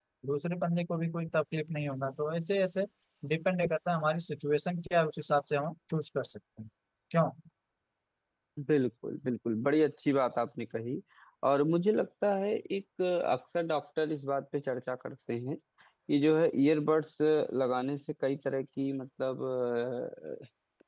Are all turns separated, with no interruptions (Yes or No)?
Yes